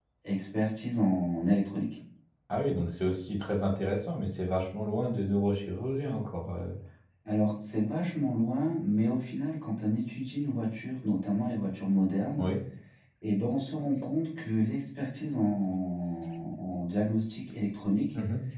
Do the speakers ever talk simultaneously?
No

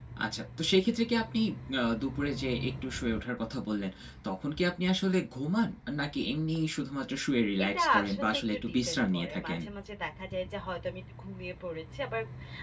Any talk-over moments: Yes, from 7.6 s

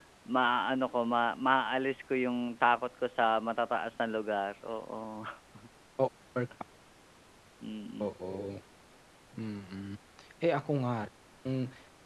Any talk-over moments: No

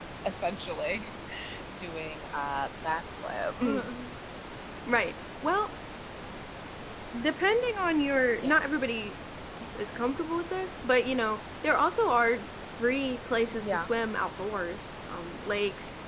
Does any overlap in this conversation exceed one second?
No

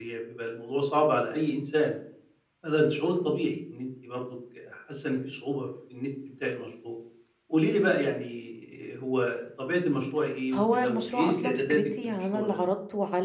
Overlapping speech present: Yes, from 10.5 s

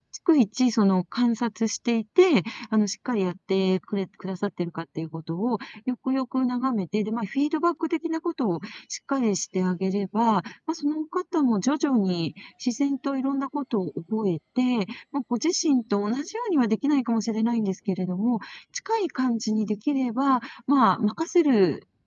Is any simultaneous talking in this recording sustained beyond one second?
No

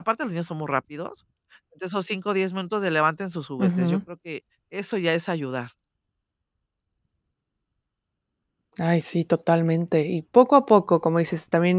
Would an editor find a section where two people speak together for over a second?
No

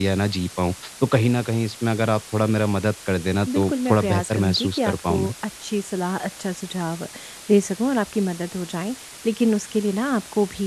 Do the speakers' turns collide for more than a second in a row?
Yes, from 3.5 s

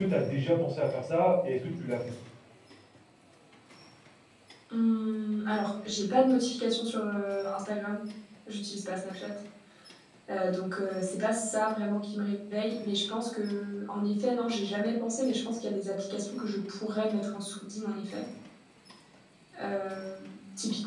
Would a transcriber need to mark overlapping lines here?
No

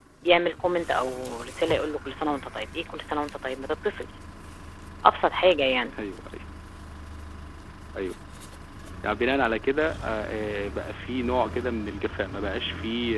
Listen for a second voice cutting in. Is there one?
No

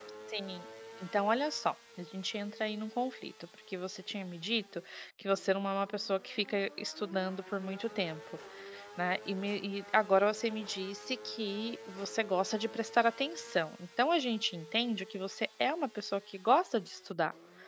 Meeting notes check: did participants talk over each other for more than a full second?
No

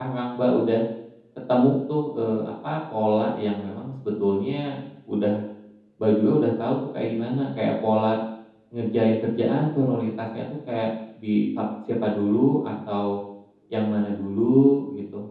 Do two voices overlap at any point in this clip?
No

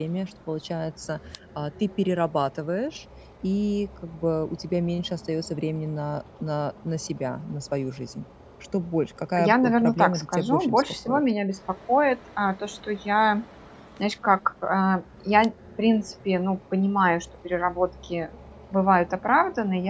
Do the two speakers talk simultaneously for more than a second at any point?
Yes, from 9.4 s

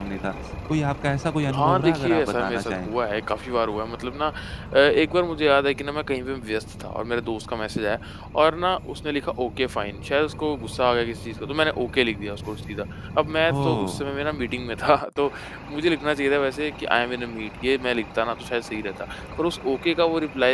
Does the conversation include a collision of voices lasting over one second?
Yes, from 1.6 s

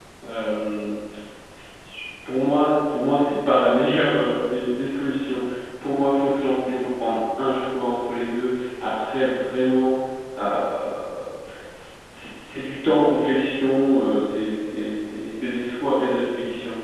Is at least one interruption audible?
No

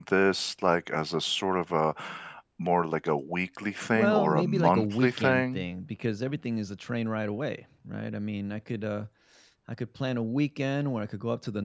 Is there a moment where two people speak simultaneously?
Yes, from 4.0 s

